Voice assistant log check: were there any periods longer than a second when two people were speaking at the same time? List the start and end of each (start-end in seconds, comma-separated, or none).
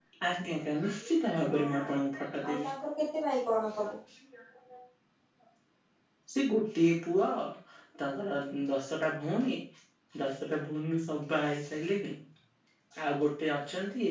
none